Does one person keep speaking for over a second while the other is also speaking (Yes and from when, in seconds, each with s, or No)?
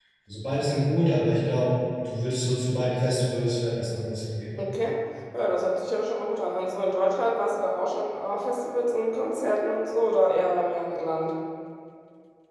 No